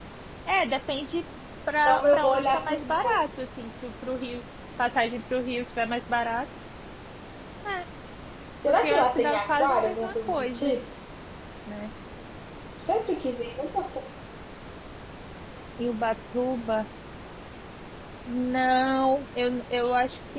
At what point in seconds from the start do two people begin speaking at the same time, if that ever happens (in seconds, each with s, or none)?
1.8 s